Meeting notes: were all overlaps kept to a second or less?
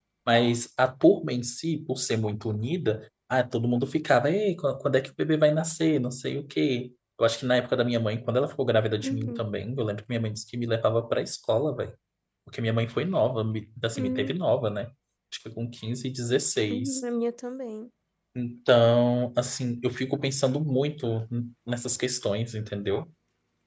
Yes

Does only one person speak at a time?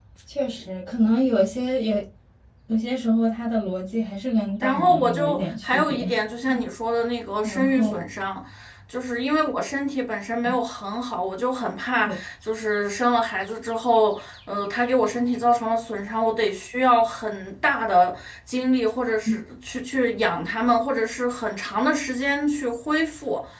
No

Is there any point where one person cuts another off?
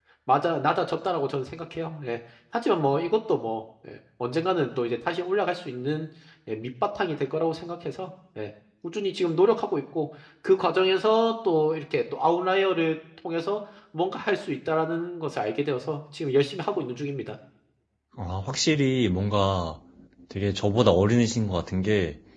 No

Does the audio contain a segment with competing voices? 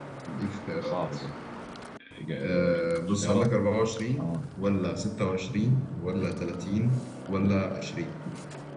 Yes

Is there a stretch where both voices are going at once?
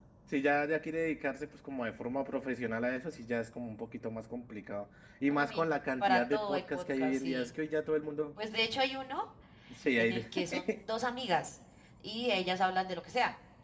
Yes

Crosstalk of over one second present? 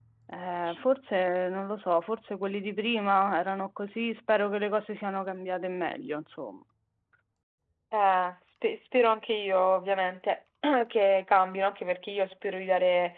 No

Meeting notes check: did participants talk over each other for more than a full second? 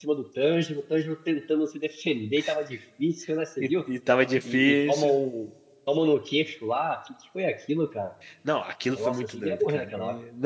Yes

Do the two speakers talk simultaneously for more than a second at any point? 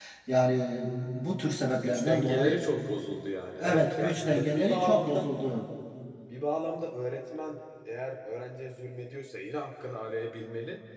Yes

